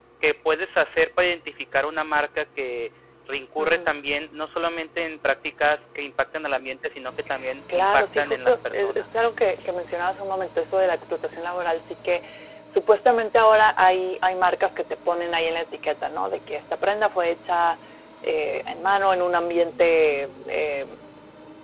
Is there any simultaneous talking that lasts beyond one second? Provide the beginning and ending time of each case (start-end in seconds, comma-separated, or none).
7.8-9.1